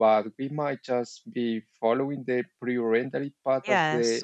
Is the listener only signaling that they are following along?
No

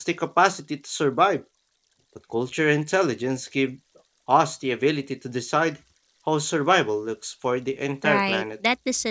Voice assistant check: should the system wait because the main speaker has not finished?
No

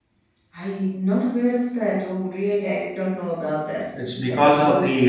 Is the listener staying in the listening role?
No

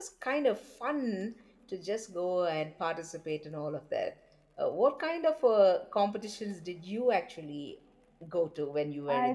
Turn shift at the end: Yes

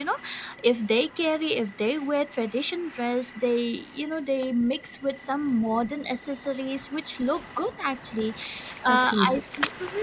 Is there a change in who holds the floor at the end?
No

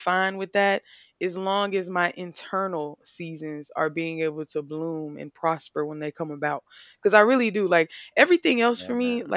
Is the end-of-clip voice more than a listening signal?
No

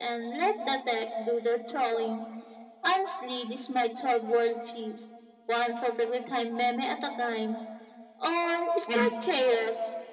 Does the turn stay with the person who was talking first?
Yes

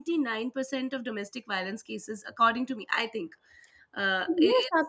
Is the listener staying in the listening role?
No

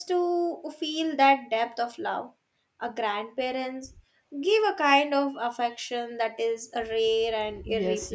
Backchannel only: No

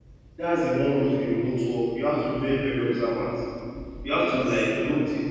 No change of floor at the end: Yes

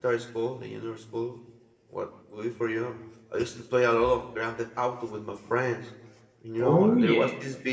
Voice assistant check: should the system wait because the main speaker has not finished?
Yes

